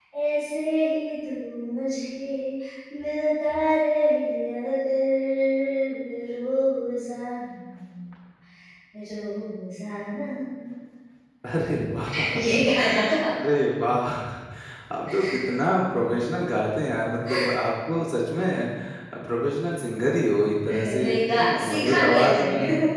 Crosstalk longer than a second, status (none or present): present